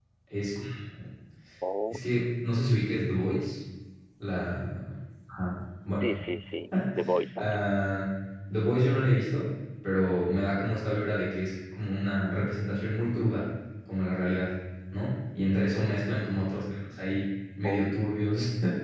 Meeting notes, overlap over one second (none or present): none